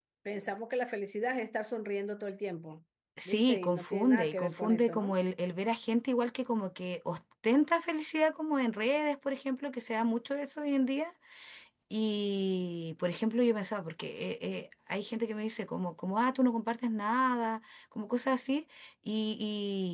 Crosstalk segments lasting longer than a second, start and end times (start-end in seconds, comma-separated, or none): 3.2-5.2